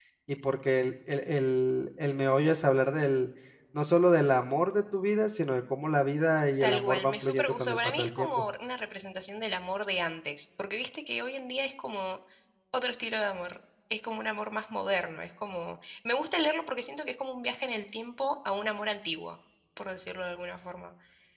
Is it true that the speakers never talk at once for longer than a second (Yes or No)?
No